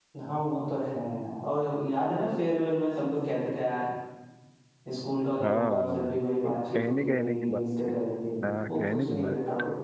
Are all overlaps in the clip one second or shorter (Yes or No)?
No